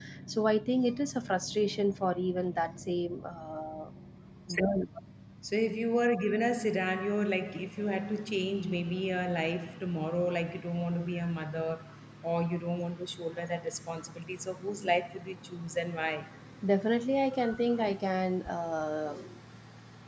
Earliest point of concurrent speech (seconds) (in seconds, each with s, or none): none